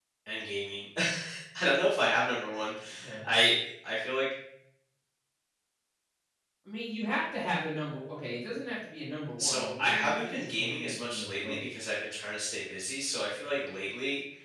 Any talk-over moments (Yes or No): Yes